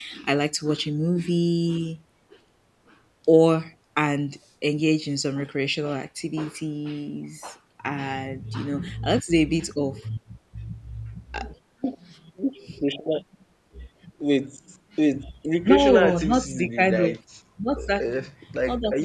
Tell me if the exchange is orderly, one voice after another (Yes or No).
No